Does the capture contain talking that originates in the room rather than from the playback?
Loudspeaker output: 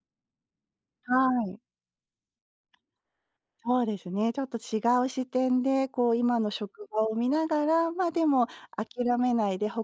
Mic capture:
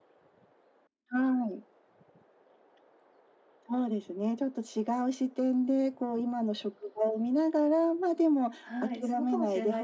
Yes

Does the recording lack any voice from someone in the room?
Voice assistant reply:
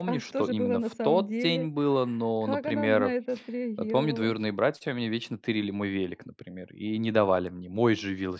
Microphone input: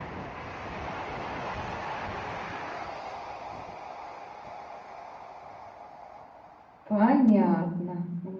No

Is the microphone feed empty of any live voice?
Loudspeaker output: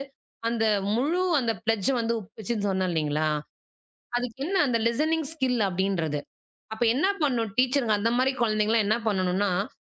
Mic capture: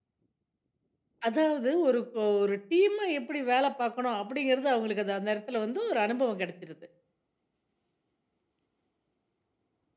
No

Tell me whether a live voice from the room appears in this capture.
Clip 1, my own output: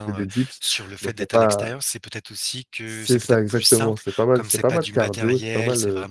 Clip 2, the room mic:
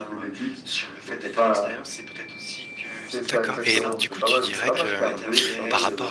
Yes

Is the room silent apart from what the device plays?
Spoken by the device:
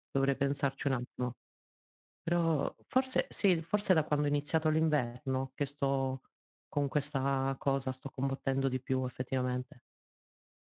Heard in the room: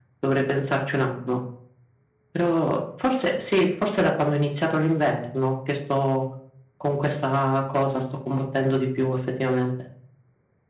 Yes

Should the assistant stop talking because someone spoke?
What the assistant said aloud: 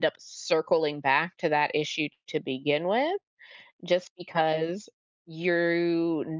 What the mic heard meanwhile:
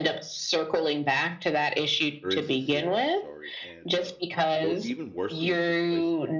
Yes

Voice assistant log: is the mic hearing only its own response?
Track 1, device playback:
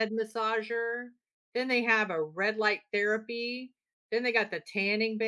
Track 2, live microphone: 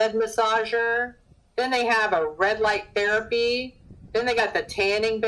Yes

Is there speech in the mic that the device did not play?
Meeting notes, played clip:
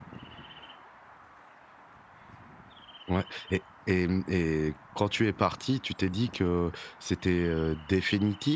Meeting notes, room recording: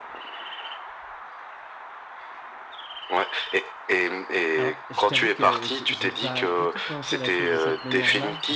Yes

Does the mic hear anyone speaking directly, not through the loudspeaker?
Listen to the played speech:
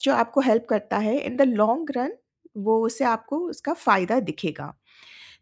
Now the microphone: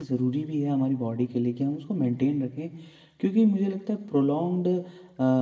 Yes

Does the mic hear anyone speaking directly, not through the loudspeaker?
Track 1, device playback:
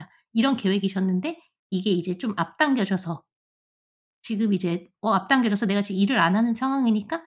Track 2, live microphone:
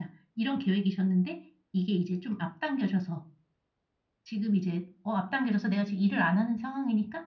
No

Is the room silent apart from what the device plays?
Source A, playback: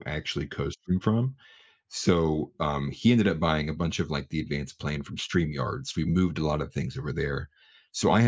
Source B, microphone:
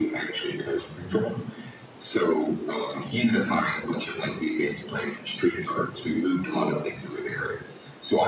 Yes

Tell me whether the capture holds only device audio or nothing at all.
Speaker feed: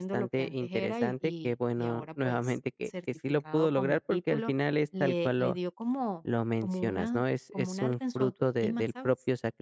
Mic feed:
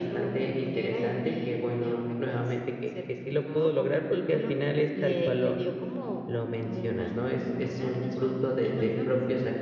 Yes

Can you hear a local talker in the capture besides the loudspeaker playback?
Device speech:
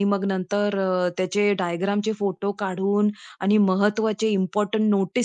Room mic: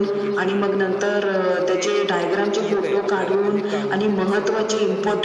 Yes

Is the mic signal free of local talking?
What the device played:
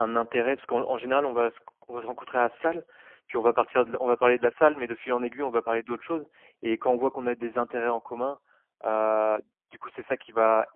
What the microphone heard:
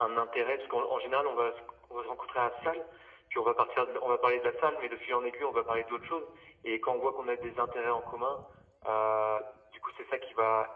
Yes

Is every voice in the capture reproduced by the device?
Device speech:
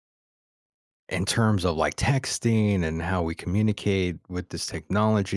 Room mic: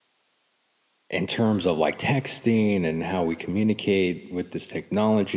Yes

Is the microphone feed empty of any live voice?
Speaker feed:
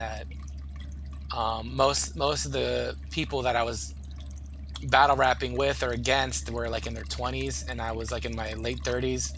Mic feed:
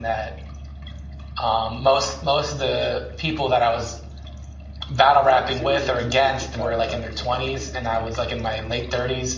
No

